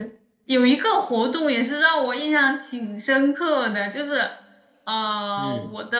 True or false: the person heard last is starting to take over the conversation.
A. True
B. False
B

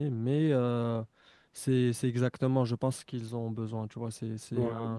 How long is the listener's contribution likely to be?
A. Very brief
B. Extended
A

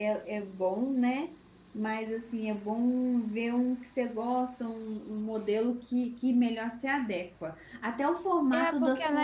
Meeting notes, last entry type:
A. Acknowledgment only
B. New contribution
B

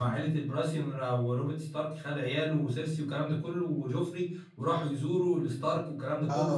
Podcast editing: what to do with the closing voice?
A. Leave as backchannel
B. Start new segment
A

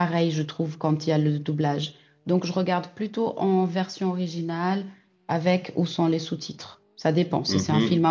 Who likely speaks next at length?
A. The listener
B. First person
A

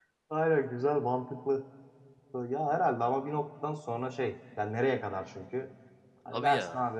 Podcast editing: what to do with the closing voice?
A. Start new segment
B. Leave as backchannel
B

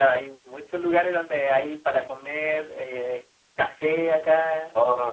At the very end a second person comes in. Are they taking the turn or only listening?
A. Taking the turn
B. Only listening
B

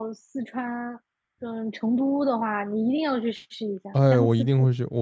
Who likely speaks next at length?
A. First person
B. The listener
B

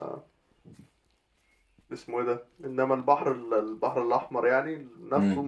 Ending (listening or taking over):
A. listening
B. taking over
A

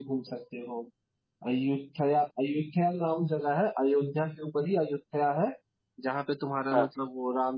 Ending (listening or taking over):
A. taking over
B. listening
B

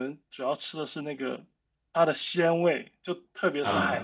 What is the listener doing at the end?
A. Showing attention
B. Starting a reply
A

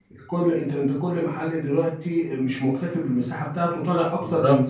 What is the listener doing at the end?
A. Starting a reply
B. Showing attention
A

